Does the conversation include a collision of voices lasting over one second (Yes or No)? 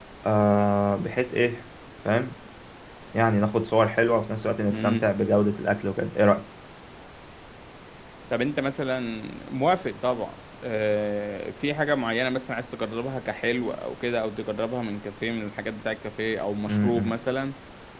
No